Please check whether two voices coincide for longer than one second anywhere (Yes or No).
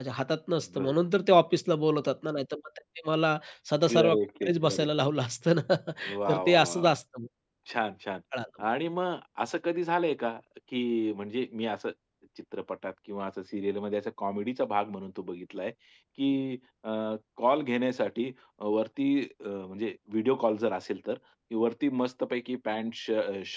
Yes